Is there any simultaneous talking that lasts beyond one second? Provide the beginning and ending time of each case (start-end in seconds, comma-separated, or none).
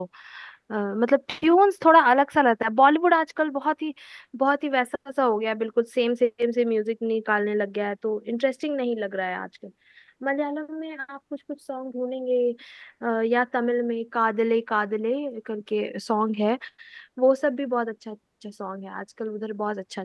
none